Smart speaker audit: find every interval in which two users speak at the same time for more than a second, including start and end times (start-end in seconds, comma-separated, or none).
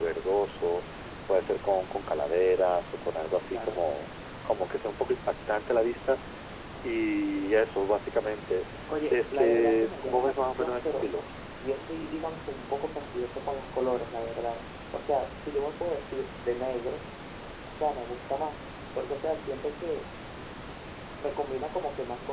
9.1-11.1